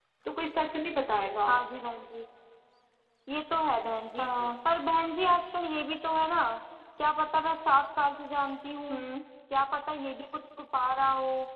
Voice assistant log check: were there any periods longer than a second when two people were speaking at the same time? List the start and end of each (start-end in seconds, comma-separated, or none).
none